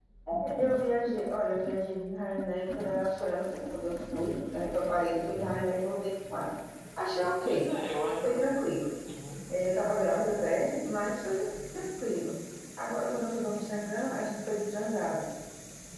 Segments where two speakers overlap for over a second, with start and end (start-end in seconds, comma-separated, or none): none